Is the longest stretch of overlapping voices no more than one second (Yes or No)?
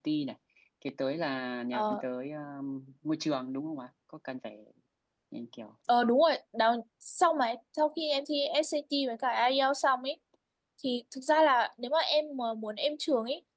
Yes